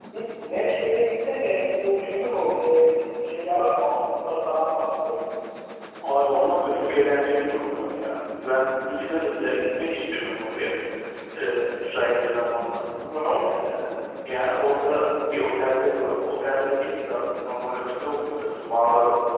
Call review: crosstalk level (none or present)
none